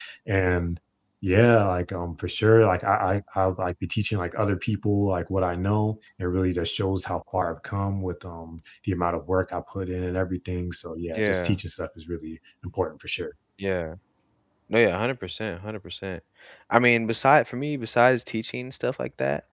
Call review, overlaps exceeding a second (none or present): none